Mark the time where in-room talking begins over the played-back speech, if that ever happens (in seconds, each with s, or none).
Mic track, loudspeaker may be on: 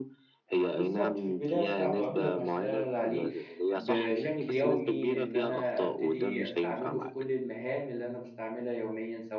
0.8 s